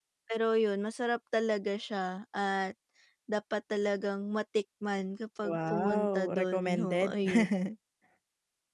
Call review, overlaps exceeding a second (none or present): present